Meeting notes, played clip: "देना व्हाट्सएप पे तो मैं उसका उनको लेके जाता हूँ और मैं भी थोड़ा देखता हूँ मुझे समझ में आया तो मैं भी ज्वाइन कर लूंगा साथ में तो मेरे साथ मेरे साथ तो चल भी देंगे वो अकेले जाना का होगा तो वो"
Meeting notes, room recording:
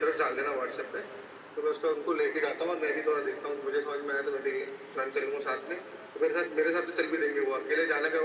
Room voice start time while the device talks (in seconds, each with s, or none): none